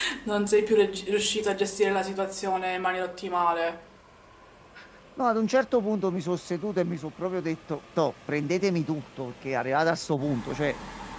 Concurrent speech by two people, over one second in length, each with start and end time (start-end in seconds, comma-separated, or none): none